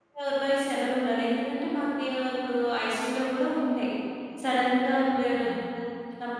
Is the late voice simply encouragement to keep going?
Yes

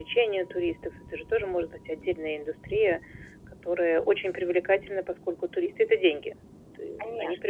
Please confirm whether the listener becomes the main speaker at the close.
Yes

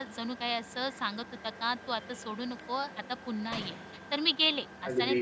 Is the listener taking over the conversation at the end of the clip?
No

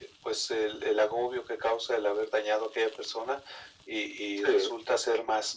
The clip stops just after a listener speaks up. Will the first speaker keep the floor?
Yes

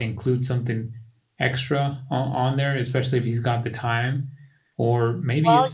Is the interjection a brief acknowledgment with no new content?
Yes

